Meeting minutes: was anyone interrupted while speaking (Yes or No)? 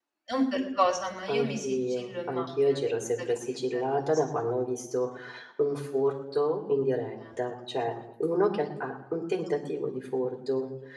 Yes